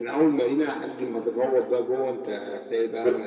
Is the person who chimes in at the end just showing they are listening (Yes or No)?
No